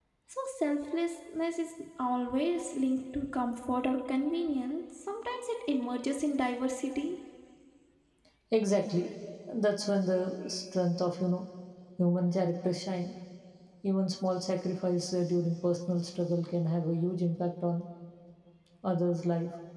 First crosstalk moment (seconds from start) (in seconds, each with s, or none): none